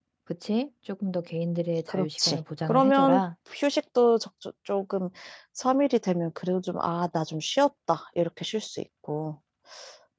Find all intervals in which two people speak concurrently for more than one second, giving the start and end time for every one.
1.9-3.2

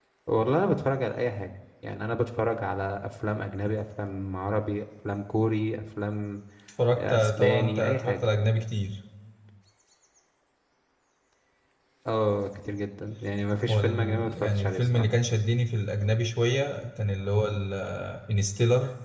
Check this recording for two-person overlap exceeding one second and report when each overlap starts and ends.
7.0-8.3, 13.7-15.1

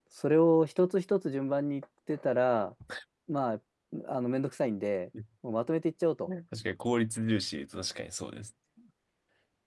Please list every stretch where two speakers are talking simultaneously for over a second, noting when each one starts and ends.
none

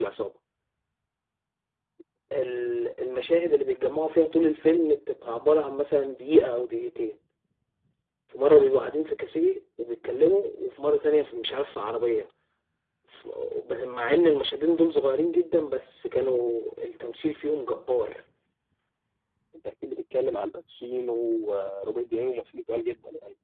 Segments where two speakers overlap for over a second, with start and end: none

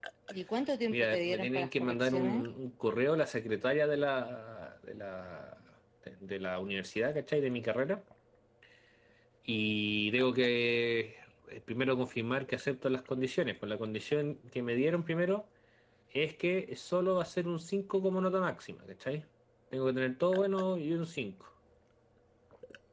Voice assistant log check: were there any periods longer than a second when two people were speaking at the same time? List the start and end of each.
0.9-2.4

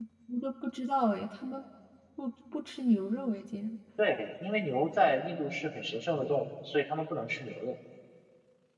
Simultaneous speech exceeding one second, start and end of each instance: none

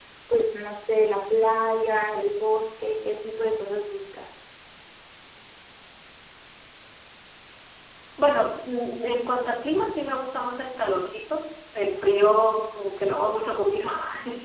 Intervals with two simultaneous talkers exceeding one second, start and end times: none

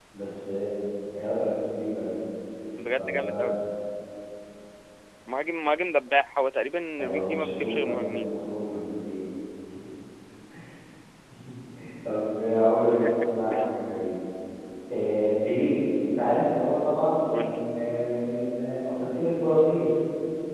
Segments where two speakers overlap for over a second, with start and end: 7.0-8.3

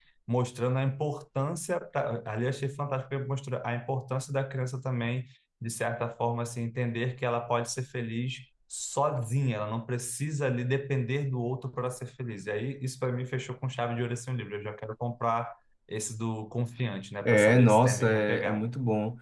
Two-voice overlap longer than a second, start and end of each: 17.2-18.7

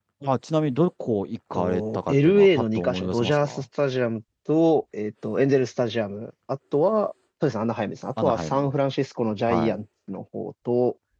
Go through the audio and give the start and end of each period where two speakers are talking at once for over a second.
1.5-3.6

